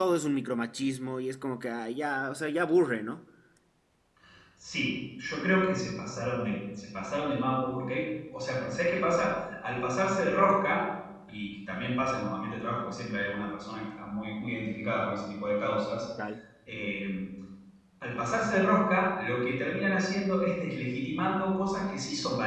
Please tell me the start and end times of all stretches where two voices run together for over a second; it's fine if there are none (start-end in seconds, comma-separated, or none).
none